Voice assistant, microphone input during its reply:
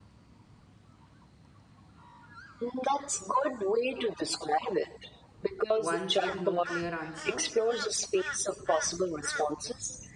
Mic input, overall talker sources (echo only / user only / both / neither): both